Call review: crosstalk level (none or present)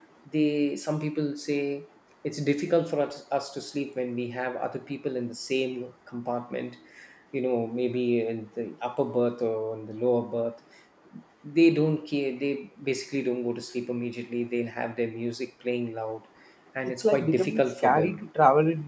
present